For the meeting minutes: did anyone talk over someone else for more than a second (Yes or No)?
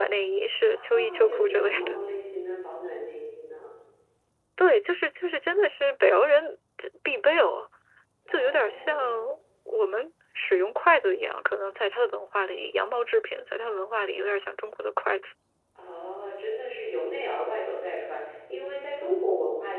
Yes